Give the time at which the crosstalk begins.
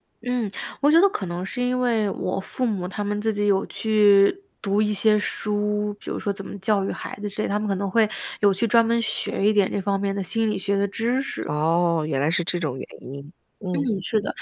none

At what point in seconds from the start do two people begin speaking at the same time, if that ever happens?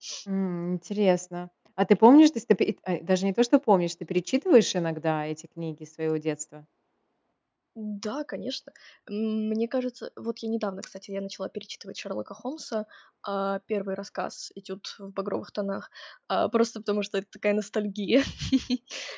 none

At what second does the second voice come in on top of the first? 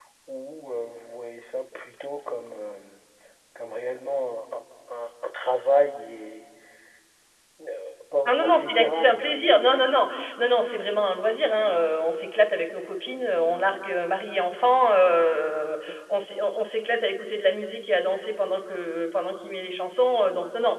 8.3 s

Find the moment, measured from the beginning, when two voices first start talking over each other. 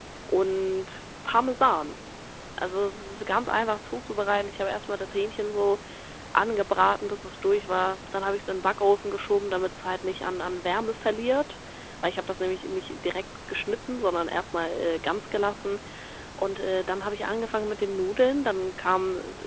none

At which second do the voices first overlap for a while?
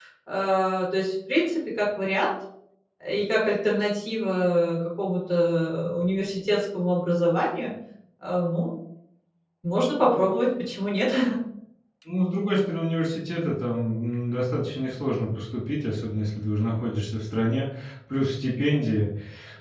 none

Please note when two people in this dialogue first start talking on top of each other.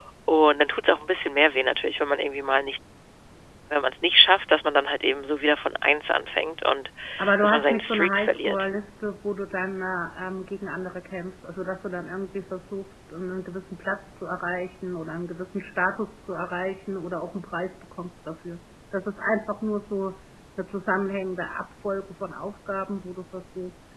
7.4 s

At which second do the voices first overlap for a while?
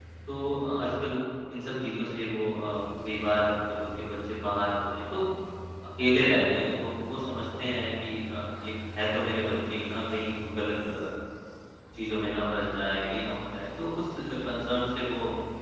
none

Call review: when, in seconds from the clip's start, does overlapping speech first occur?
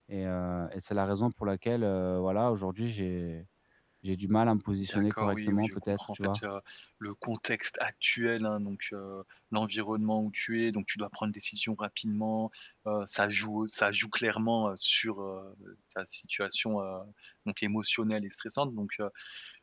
4.8 s

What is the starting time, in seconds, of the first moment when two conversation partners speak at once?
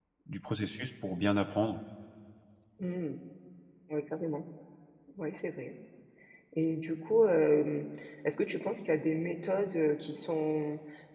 none

